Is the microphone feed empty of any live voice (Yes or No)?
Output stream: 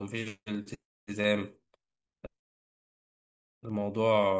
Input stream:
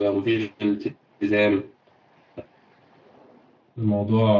Yes